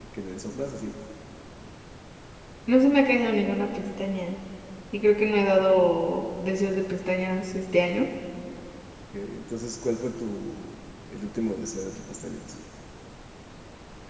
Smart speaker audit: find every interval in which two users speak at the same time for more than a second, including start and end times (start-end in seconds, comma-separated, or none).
none